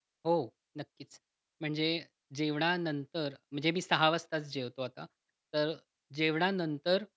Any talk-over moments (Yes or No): No